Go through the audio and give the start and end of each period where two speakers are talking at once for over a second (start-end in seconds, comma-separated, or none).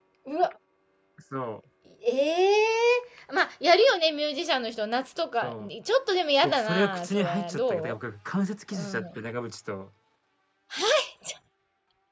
6.4-8.0